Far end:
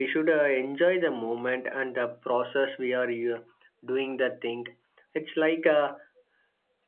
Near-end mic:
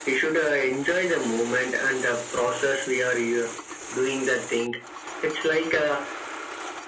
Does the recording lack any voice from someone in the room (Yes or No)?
Yes